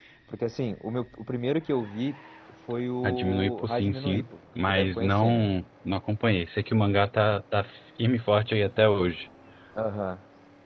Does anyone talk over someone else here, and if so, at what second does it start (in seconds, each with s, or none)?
3.0 s